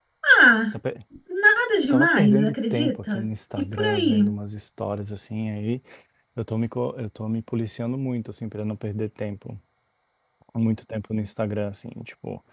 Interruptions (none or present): present